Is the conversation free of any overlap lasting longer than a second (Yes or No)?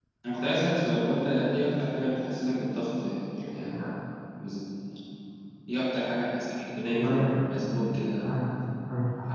Yes